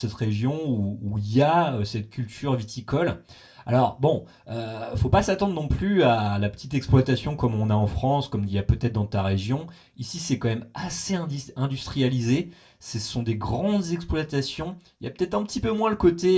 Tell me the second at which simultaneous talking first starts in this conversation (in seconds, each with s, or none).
none